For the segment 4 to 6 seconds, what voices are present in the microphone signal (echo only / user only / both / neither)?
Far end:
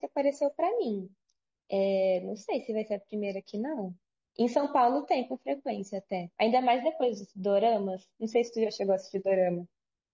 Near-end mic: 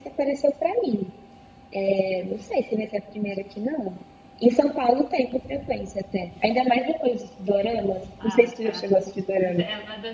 echo only